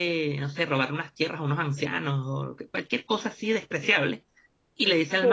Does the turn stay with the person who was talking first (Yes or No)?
Yes